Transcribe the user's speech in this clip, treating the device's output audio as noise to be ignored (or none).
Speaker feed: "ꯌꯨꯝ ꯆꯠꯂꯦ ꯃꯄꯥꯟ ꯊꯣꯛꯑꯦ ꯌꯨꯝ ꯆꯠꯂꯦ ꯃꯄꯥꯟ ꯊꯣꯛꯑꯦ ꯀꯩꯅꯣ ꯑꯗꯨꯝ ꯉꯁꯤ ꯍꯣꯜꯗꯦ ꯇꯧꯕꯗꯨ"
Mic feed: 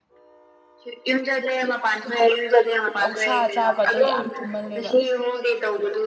ꯑꯣꯛꯁꯥ ꯆꯥꯕ ꯑꯗꯣ ꯌꯥꯝ ꯊꯨꯝꯃꯜꯂꯦꯕ